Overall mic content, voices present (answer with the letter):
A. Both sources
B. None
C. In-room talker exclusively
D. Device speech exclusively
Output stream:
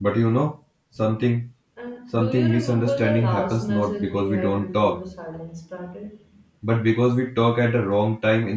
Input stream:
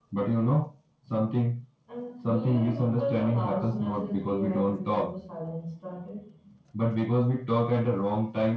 D